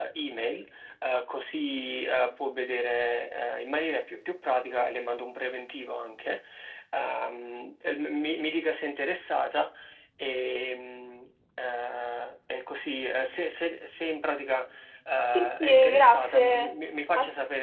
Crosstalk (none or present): present